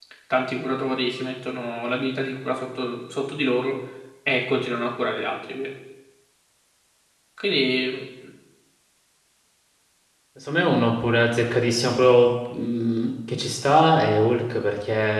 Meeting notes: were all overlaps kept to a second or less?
Yes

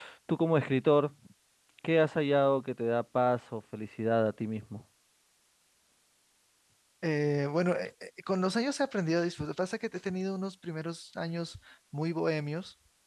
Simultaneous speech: No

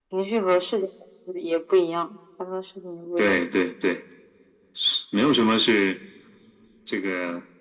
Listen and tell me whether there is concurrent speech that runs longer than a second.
No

